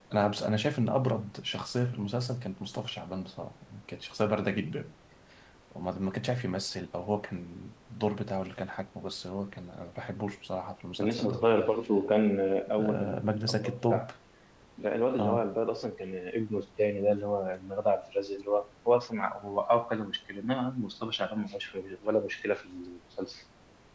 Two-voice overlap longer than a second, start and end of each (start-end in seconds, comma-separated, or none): 12.8-14.1